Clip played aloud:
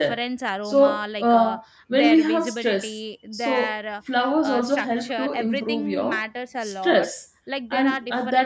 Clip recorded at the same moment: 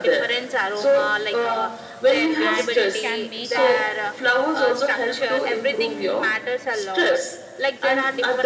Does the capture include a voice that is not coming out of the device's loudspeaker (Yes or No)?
Yes